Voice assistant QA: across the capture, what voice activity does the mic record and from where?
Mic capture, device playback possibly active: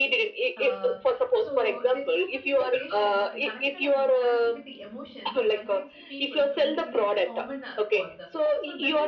both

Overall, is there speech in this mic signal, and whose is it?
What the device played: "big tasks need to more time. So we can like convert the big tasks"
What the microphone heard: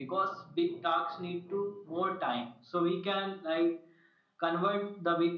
echo only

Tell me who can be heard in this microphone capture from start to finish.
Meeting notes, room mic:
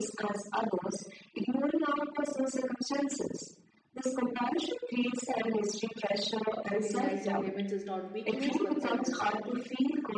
both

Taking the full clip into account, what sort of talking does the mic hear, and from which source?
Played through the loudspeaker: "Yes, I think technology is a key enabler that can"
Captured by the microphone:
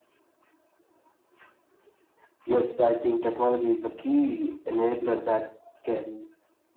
echo only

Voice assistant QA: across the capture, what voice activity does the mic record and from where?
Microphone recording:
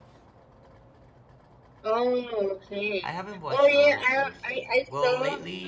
both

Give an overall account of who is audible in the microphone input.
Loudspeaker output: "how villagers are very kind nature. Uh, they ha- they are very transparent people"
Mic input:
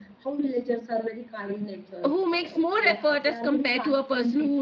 both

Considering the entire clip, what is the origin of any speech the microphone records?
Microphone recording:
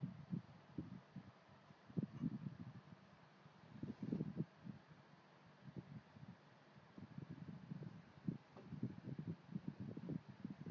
neither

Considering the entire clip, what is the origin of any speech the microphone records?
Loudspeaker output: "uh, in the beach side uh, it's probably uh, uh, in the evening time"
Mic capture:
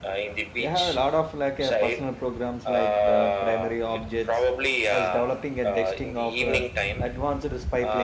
both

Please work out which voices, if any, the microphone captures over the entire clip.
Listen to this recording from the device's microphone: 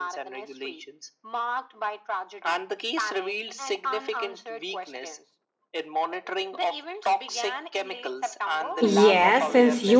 both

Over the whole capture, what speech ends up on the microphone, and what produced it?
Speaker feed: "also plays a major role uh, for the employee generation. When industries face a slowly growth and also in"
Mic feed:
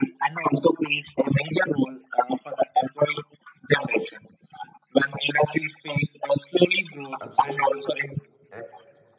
both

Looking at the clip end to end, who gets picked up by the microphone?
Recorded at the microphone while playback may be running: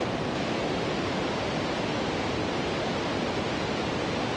neither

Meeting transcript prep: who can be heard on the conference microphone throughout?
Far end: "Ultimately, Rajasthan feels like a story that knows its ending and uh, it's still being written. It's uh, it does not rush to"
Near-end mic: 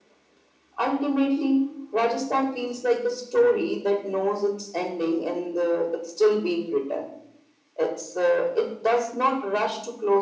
echo only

